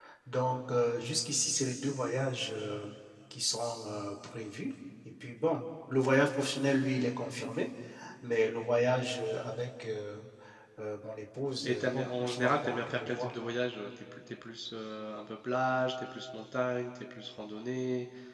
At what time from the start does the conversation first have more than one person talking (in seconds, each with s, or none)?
11.6 s